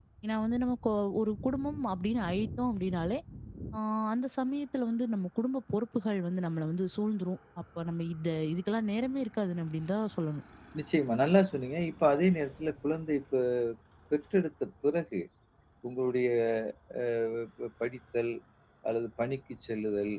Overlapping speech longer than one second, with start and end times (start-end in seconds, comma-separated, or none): none